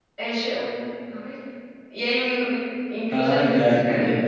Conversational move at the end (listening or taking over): taking over